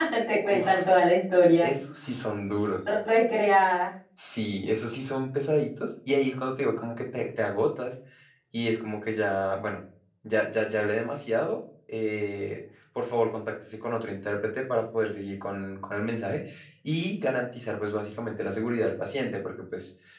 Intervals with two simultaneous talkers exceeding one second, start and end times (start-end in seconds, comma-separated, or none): none